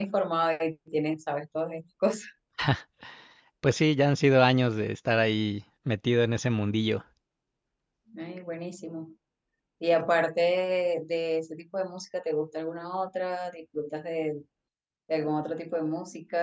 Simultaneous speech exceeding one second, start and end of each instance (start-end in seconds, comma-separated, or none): none